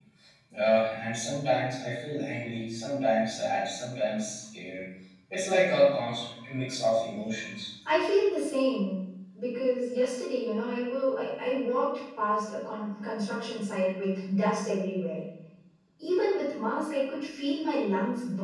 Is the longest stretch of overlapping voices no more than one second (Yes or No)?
Yes